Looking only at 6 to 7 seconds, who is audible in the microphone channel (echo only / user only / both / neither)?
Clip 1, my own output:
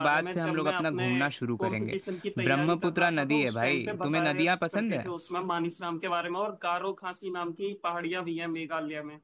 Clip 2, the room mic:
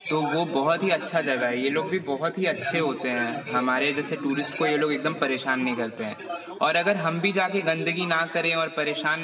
both